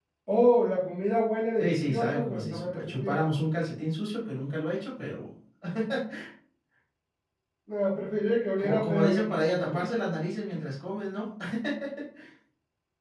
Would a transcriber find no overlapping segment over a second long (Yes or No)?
No